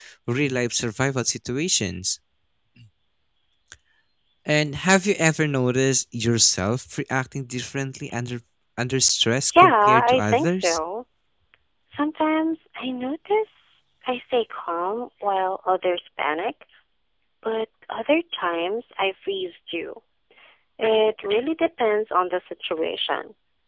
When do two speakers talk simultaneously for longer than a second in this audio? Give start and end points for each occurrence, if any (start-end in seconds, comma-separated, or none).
9.5-10.8